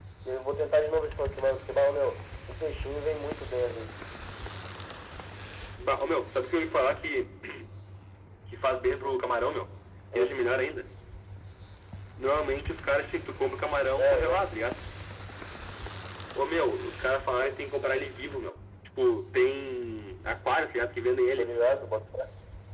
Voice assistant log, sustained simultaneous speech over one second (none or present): none